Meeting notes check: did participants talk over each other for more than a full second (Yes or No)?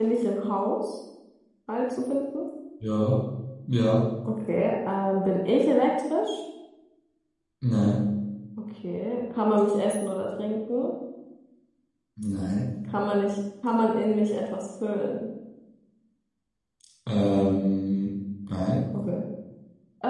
No